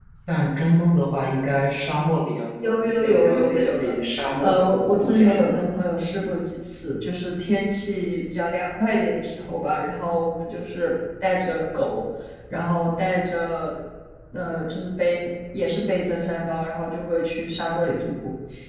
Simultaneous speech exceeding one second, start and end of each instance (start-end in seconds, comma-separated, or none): 2.6-3.9, 4.4-5.7